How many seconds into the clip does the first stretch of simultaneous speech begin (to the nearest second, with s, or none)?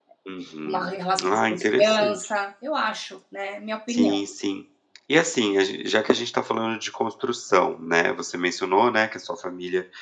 1 s